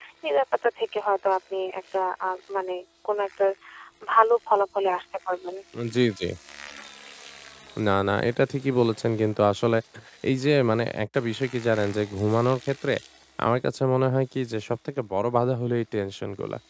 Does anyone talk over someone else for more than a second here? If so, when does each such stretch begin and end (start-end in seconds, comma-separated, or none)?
none